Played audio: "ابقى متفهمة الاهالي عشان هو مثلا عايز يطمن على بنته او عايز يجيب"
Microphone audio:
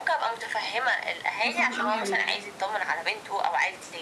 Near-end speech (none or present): present